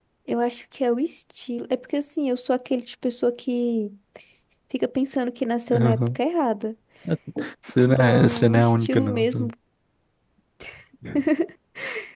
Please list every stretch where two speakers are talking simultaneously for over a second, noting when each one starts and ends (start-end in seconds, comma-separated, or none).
8.0-9.5